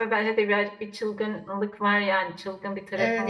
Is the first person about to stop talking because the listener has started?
Yes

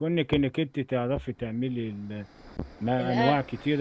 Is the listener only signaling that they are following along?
Yes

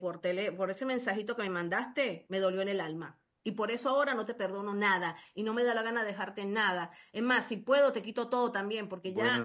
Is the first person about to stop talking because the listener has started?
Yes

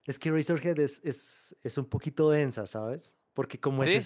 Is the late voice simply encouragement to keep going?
Yes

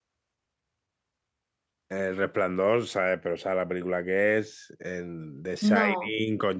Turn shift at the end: No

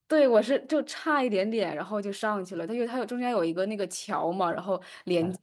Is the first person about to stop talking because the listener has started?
No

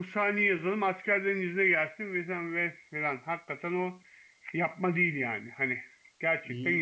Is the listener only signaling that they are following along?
No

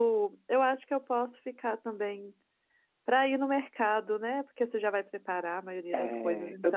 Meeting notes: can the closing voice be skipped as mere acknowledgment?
No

